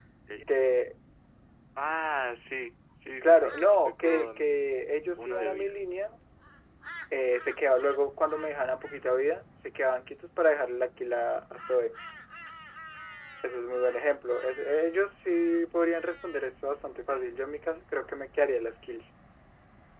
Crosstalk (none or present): present